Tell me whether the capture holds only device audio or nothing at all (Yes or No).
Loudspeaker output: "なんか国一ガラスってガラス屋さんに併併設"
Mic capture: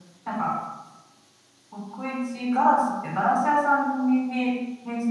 Yes